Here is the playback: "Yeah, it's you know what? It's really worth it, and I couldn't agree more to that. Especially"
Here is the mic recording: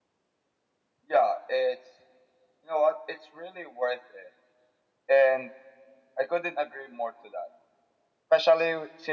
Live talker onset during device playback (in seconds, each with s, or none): none